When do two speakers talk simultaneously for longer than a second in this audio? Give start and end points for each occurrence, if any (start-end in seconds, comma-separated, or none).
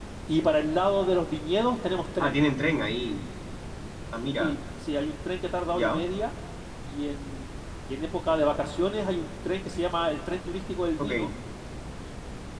none